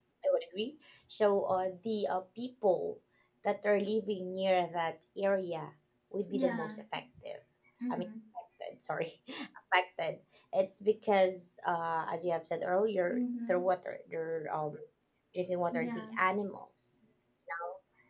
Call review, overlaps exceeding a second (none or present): none